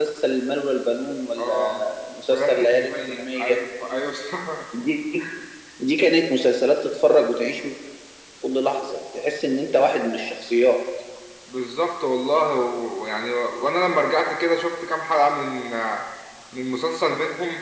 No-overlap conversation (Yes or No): No